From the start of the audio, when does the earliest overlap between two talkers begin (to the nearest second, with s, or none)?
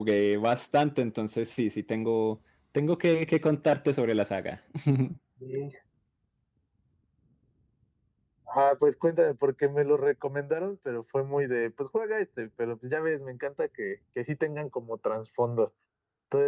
none